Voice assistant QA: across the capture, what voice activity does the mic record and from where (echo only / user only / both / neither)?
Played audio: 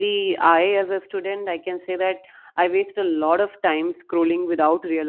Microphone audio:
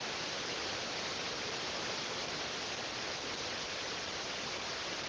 neither